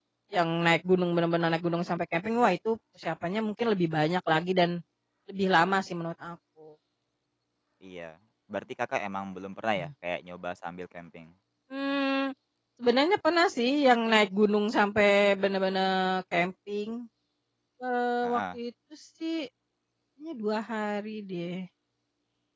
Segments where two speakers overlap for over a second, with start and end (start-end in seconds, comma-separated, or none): none